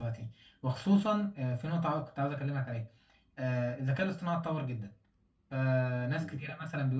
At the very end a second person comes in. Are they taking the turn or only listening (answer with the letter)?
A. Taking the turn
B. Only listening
B